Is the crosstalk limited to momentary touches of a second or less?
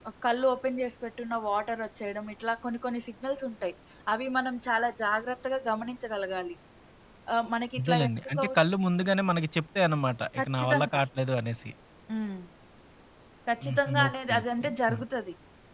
No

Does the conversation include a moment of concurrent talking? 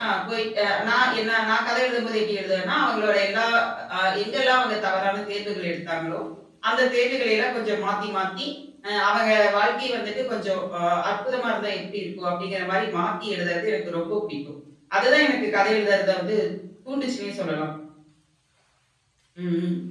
No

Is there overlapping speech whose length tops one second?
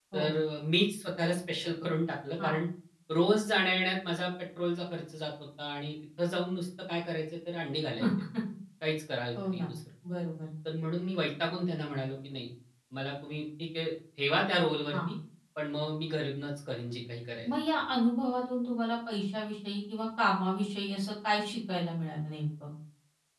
No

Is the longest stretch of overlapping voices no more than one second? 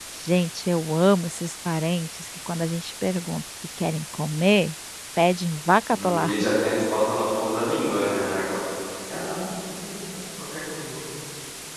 Yes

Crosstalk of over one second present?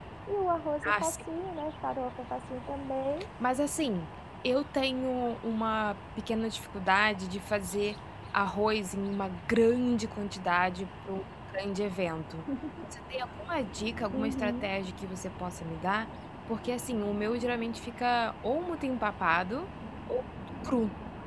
No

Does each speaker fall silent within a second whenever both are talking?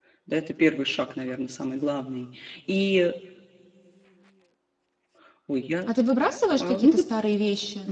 Yes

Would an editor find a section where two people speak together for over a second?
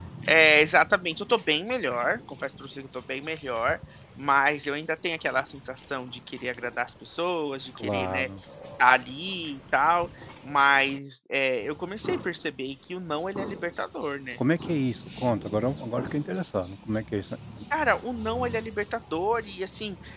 No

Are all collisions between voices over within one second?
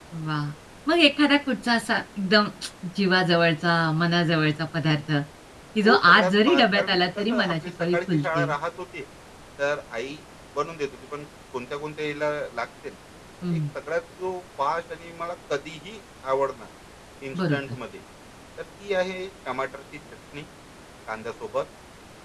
No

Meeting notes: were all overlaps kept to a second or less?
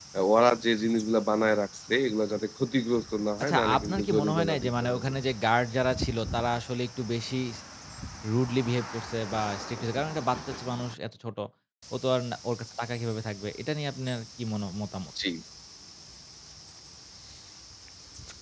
No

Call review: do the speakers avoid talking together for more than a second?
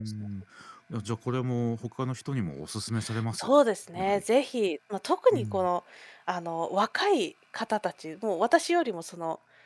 Yes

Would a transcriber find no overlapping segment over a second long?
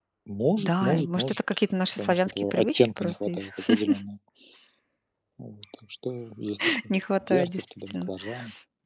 No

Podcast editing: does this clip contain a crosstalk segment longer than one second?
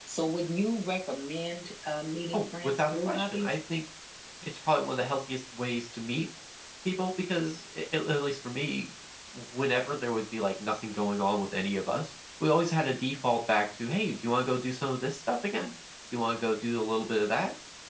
Yes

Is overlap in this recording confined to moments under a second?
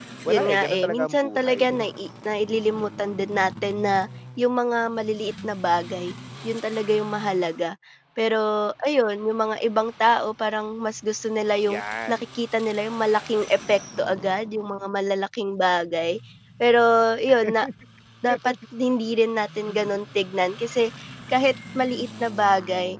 No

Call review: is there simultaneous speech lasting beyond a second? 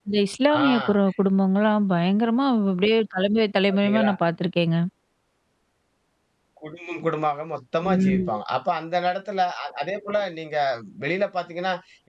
No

